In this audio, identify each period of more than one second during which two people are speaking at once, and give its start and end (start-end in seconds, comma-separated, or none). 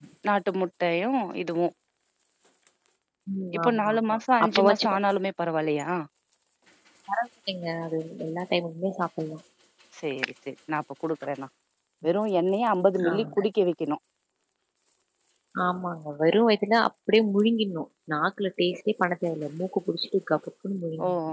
3.6-5.0